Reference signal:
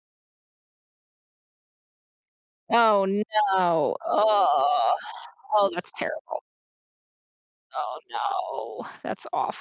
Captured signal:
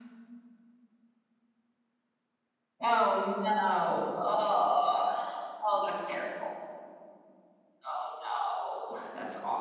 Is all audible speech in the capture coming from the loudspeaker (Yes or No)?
Yes